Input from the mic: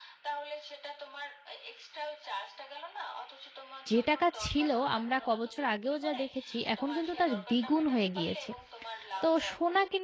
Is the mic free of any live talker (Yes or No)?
No